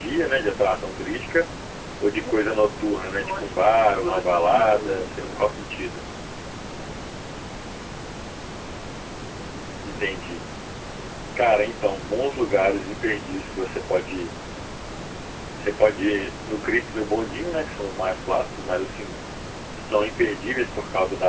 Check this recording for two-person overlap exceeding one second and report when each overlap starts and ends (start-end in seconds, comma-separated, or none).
3.2-5.4